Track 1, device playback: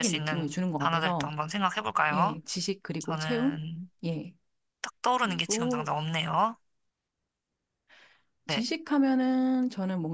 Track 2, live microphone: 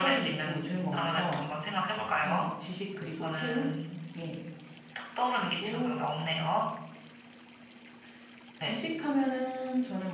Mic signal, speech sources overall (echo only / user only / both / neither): echo only